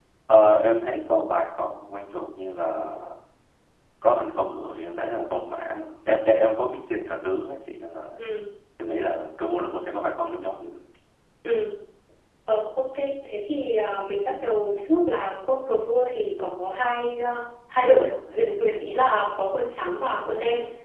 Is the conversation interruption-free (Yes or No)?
Yes